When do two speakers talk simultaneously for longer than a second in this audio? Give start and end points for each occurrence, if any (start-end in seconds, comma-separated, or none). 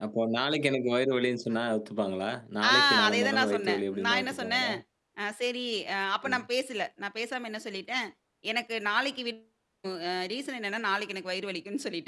2.6-4.7